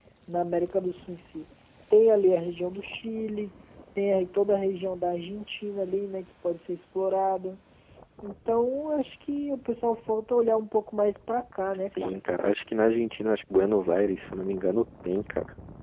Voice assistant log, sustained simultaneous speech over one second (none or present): none